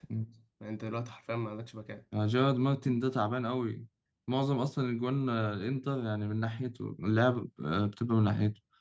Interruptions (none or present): none